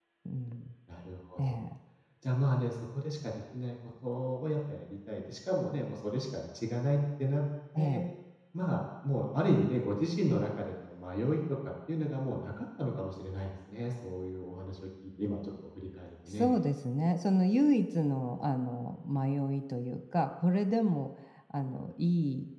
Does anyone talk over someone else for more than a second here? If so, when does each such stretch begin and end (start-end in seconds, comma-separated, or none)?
none